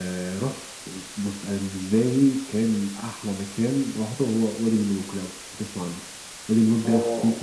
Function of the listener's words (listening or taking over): listening